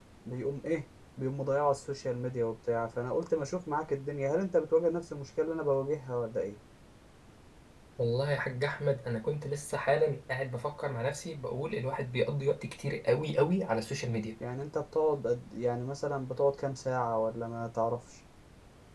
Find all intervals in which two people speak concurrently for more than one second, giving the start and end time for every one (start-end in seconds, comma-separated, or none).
none